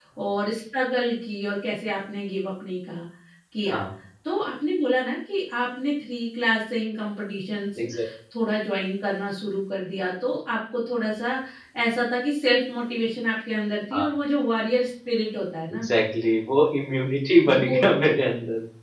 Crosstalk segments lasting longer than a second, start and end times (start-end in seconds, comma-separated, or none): none